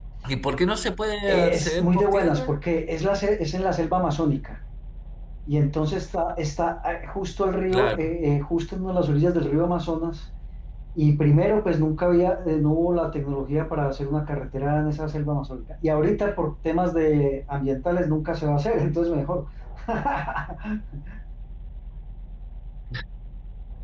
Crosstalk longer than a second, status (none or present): present